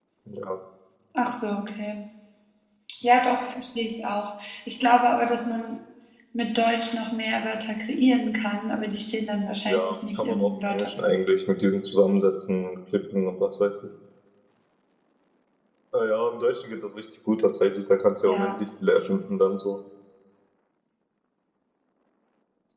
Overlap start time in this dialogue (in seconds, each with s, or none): 9.7 s